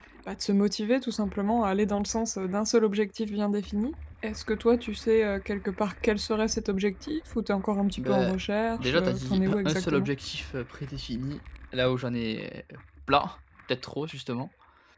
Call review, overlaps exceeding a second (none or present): present